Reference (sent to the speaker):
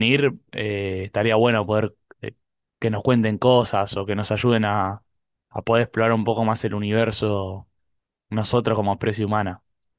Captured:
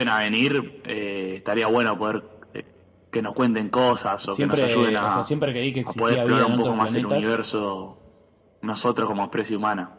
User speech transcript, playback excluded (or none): siempre, o sea, siempre creí que existía vida en otros planetas